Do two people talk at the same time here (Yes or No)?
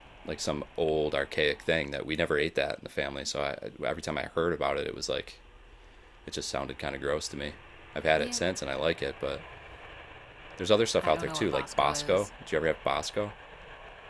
Yes